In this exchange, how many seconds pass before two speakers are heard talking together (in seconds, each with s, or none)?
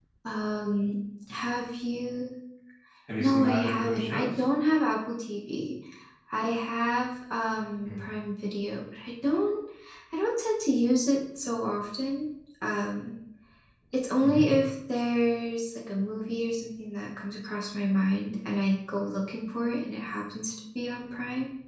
3.2 s